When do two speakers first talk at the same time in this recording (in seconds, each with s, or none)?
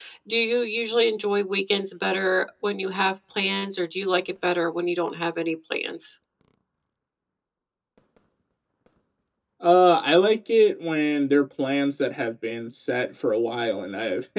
none